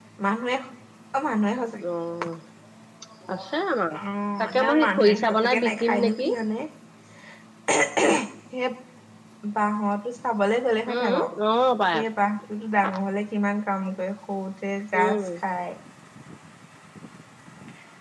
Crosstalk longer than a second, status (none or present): present